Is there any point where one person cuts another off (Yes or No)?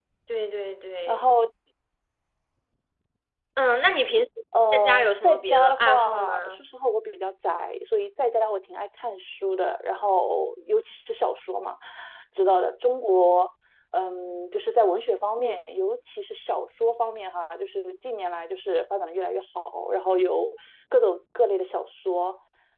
Yes